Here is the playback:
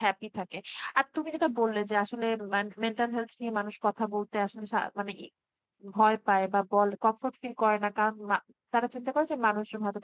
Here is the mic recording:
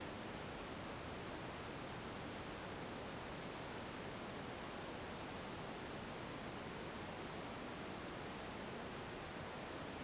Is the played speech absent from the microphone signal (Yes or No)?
Yes